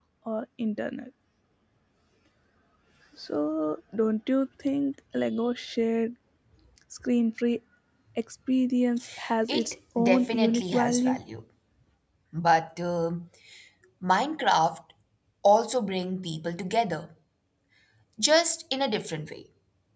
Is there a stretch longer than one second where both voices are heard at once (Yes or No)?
Yes